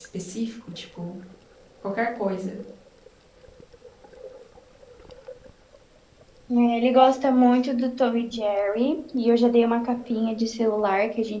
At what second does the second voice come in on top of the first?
none

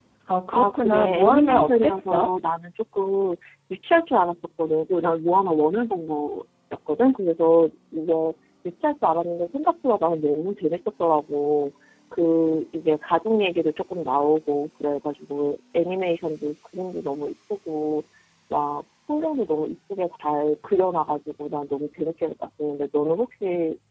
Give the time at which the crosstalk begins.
0.5 s

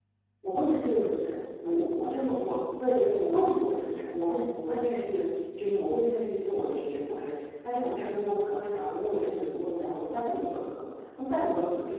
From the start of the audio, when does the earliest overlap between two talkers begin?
none

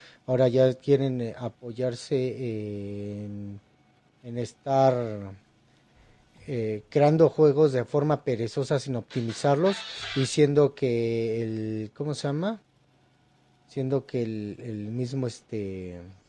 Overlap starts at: none

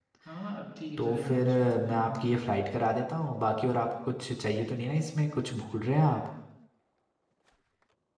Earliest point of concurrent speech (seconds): 1.0 s

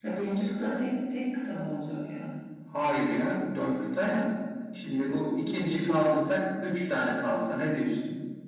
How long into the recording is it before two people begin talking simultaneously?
none

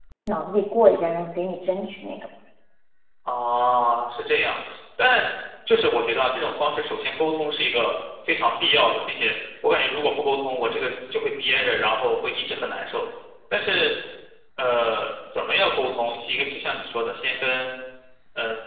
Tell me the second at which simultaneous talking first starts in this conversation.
none

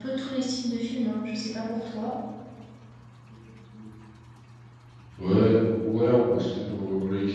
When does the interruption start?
none

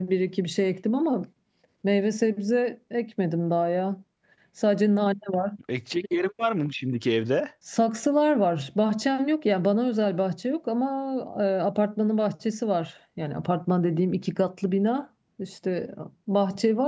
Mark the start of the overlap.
none

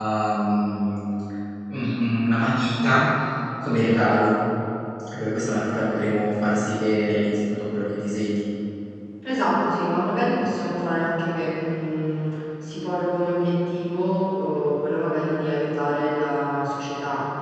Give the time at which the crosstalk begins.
none

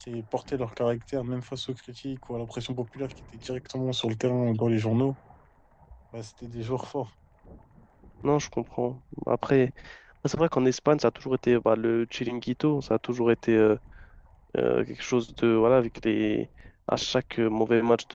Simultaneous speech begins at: none

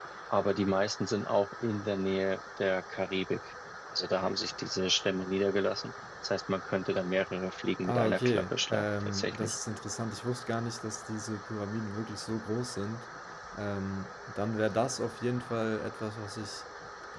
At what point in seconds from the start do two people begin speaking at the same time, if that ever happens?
7.8 s

